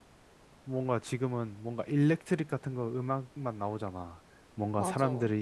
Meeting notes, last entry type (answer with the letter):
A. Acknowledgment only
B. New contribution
A